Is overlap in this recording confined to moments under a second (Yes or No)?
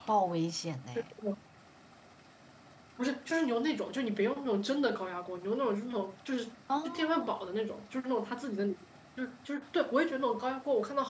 Yes